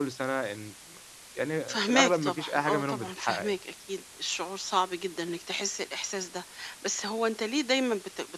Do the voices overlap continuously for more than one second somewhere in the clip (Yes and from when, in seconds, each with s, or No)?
Yes, from 1.7 s